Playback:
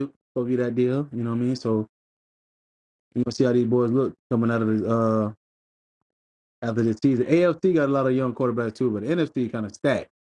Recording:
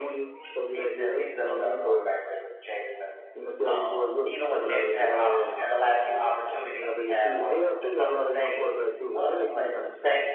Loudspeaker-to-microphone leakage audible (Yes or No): Yes